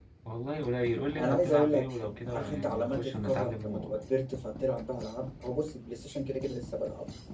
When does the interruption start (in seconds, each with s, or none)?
1.2 s